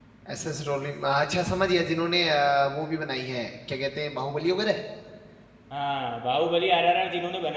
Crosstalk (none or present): none